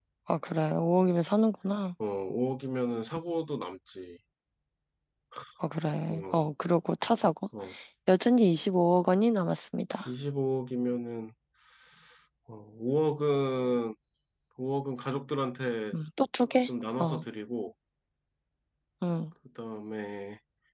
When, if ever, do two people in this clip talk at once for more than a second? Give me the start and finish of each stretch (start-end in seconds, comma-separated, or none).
none